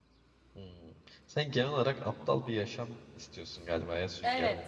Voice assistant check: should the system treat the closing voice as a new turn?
Yes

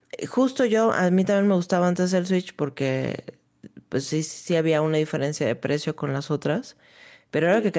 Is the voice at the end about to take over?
No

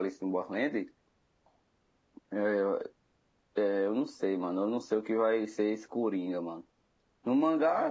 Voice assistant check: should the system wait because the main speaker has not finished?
Yes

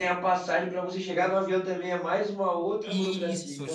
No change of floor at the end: No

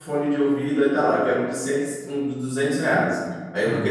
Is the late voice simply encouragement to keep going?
Yes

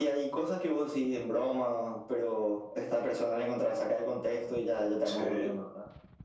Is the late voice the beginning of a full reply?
Yes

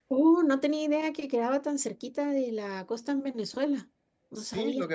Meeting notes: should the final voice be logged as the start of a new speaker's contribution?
Yes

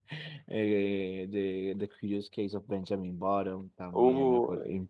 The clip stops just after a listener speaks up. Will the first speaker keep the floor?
Yes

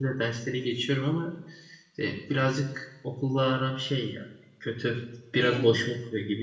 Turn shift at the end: No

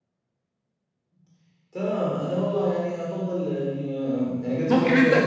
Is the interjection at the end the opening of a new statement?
Yes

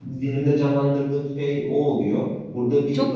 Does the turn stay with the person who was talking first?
No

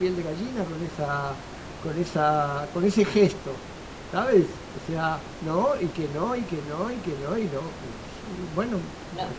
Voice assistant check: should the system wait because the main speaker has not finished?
No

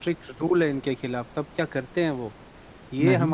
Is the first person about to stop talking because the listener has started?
No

